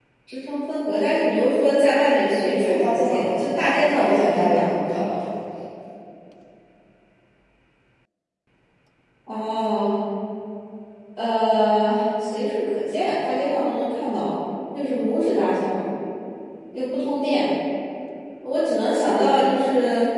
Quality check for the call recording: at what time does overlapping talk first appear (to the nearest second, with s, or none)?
2 s